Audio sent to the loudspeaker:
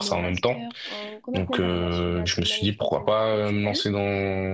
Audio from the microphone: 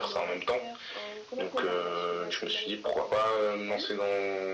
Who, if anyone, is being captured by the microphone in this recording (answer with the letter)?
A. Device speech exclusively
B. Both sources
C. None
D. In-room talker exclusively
A